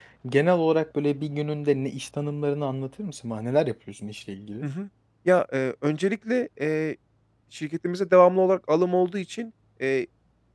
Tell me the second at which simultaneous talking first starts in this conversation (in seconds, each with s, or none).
none